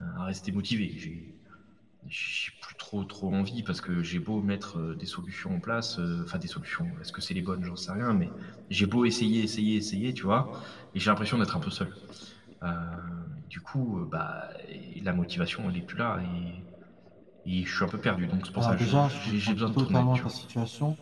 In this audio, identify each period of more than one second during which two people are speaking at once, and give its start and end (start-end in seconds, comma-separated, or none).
18.6-20.3